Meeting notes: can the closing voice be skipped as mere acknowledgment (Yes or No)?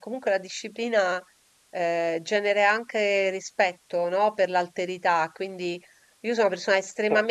Yes